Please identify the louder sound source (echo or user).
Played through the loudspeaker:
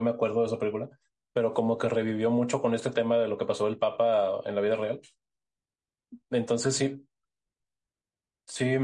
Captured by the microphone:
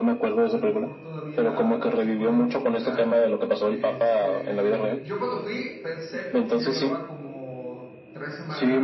echo